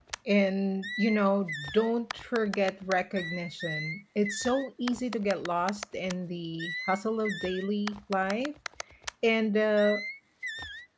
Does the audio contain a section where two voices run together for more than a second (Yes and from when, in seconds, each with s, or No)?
No